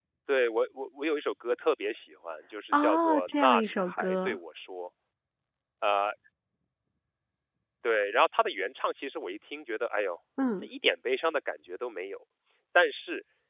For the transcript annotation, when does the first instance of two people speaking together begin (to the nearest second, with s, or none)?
3 s